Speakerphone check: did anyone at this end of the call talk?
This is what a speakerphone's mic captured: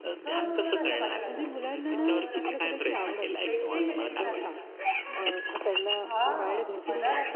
Yes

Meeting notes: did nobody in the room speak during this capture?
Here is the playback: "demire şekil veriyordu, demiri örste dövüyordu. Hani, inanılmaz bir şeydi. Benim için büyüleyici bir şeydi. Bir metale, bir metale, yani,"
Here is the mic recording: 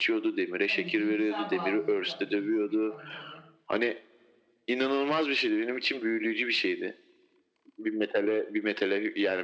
No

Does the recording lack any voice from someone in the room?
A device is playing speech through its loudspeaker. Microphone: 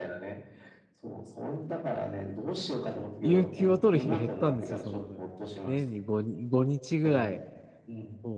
No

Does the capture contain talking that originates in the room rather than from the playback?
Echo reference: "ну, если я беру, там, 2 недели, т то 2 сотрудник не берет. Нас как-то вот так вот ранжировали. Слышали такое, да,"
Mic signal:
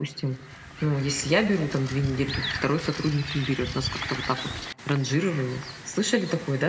No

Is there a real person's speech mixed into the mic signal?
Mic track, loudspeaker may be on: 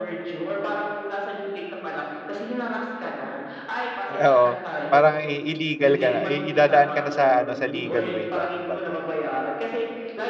Yes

